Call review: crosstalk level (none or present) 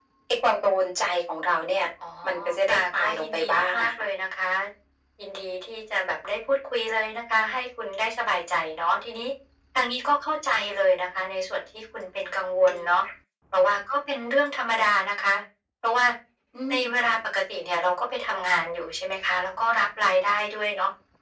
present